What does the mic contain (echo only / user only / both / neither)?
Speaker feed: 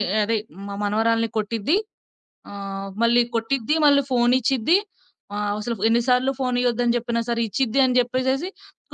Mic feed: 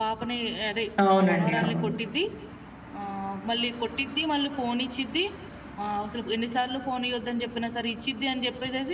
both